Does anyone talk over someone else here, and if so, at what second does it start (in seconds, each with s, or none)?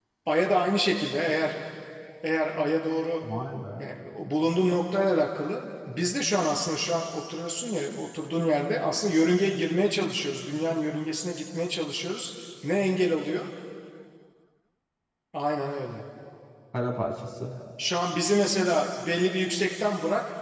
none